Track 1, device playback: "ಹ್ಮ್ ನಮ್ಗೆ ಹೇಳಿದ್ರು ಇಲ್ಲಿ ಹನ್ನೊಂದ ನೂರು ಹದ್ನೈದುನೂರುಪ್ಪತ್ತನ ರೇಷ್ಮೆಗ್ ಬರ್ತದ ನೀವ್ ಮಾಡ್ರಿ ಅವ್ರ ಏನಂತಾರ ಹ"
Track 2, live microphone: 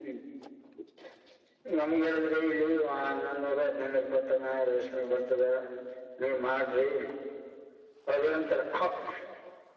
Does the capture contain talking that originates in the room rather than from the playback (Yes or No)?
No